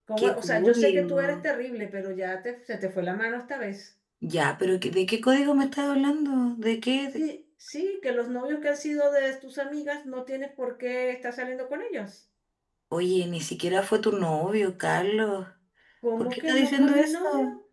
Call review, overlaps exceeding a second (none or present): present